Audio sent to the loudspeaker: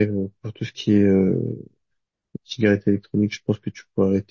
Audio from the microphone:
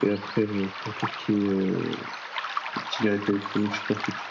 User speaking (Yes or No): No